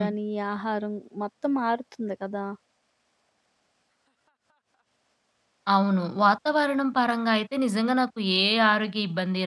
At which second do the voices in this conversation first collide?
none

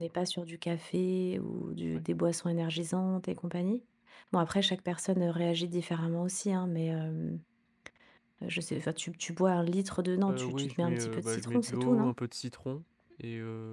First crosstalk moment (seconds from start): 10.3 s

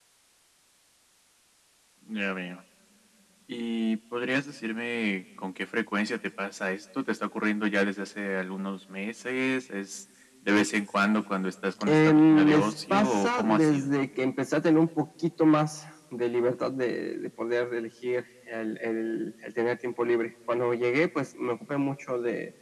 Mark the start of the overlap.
11.8 s

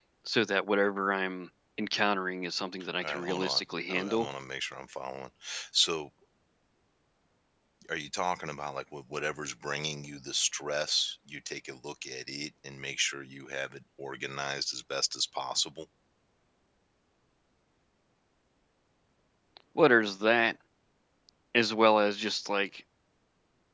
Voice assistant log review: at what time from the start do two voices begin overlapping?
3.0 s

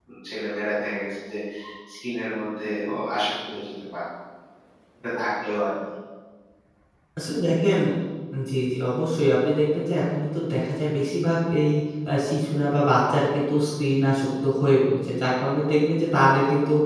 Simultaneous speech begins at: none

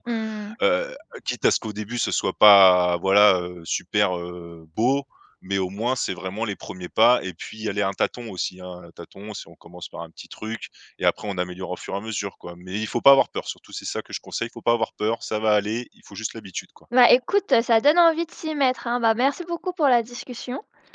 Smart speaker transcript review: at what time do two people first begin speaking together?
none

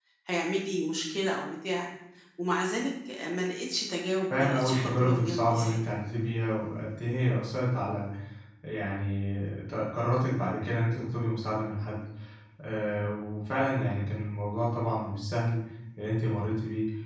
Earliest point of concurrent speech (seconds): 4.3 s

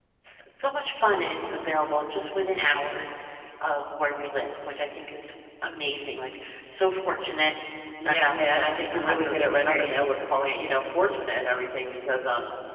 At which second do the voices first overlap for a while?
8.1 s

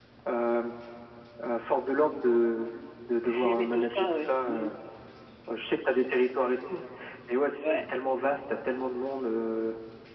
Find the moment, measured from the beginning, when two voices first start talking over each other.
3.3 s

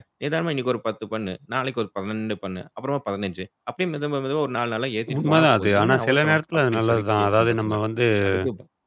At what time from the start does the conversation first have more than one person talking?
5.1 s

